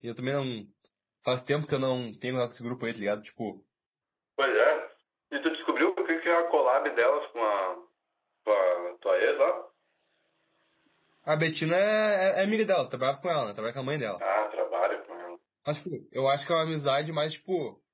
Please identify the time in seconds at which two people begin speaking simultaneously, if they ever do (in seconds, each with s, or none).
none